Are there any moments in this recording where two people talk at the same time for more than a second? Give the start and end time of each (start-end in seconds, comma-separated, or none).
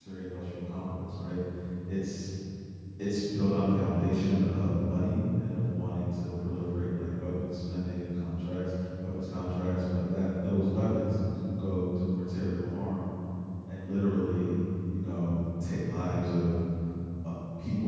none